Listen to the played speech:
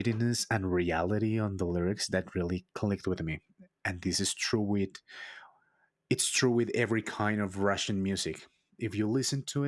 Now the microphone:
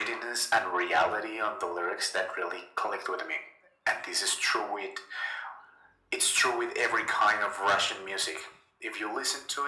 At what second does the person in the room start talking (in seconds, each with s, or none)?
none